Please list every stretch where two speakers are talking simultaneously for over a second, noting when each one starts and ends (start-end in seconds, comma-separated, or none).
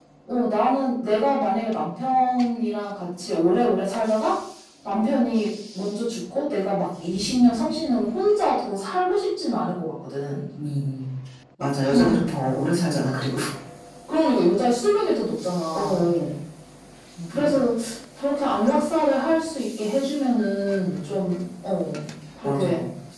none